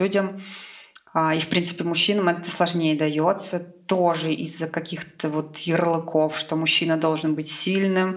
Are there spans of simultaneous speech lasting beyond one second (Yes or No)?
No